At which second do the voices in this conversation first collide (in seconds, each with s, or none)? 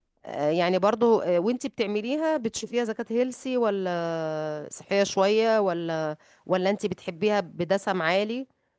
none